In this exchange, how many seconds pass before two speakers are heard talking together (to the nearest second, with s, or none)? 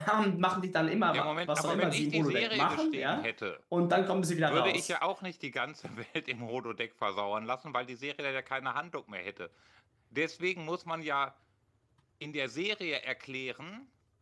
1 s